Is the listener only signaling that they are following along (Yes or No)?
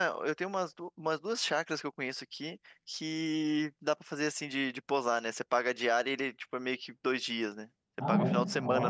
No